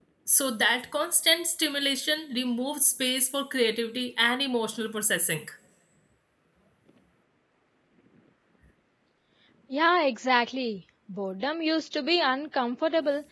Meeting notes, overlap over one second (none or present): none